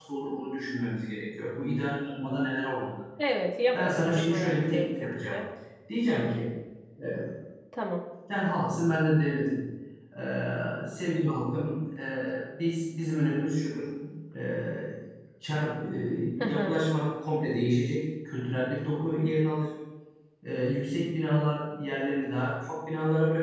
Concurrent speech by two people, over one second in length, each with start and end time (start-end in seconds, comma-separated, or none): 3.7-5.4